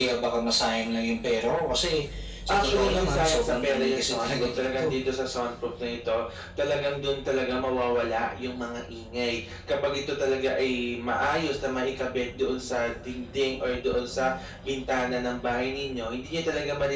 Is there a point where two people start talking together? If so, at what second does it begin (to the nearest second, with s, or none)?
2 s